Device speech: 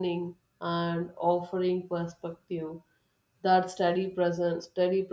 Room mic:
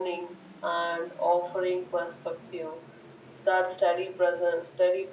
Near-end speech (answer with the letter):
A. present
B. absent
B